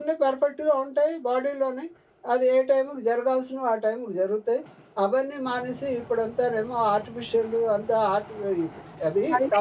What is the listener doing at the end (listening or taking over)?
taking over